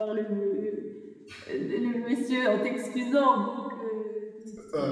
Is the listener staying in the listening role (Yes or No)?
Yes